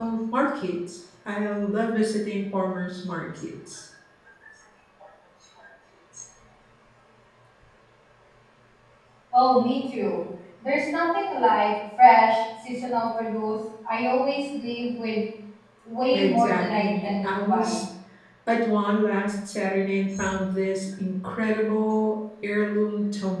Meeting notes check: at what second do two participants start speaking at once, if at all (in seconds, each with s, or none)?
16.1 s